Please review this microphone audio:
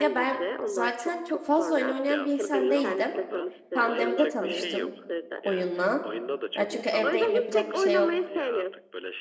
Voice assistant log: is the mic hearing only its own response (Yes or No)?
No